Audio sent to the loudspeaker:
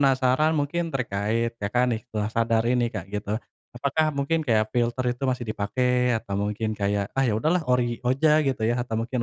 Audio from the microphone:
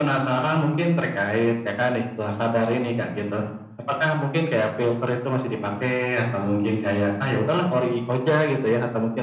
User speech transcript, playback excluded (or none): none